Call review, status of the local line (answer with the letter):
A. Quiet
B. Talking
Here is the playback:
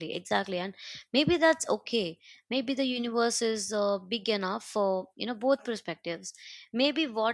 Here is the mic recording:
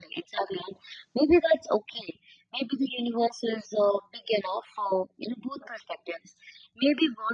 A